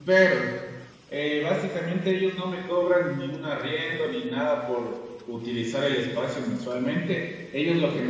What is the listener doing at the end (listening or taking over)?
listening